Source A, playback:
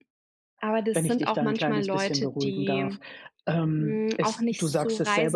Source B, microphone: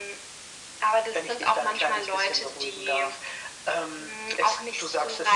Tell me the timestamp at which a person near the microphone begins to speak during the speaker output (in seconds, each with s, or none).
none